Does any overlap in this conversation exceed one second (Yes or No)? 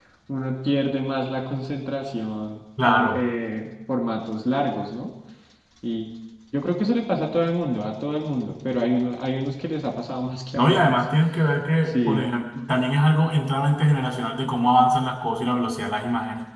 No